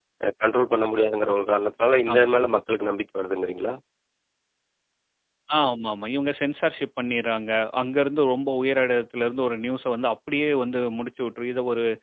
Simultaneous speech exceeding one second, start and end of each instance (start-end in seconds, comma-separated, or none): none